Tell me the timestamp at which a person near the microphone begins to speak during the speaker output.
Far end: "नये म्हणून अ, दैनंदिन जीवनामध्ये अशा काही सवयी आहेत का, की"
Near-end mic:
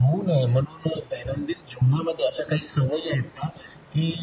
none

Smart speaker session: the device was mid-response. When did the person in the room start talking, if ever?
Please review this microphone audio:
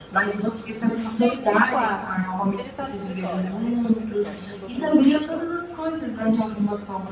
1 s

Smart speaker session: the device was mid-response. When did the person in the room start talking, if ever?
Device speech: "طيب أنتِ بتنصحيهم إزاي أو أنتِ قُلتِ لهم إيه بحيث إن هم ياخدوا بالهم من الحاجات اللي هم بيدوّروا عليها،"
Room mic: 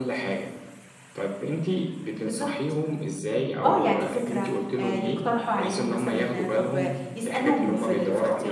2 s

